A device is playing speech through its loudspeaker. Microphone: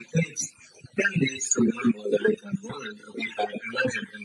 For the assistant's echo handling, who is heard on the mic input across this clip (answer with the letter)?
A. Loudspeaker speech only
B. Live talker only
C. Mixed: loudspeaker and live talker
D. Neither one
A